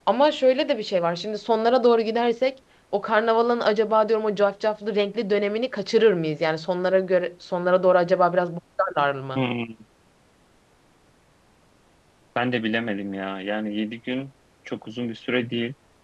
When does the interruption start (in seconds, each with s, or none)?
none